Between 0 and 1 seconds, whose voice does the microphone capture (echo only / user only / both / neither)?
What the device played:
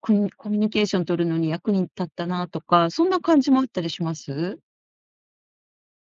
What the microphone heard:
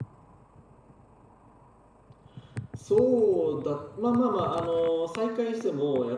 neither